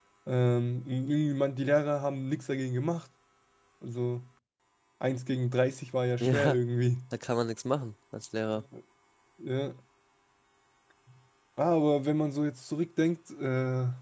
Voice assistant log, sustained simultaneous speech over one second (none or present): none